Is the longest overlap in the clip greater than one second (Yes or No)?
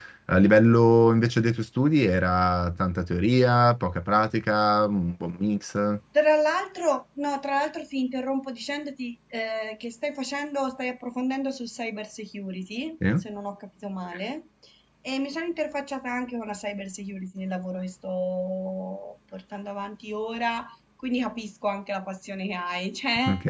No